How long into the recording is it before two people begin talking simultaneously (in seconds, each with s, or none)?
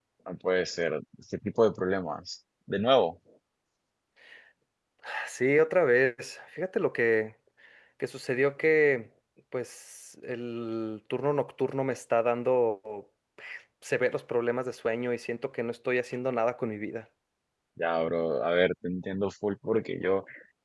none